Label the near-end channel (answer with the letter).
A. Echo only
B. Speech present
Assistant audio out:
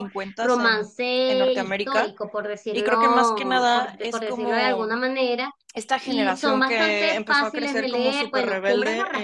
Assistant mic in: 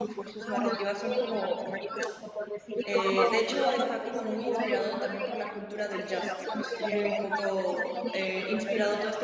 B